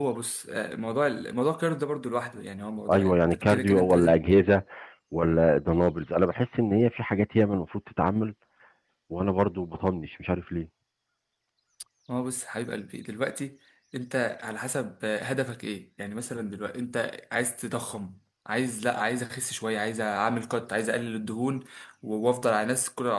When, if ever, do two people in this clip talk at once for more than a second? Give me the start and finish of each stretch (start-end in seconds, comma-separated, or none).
2.9-4.2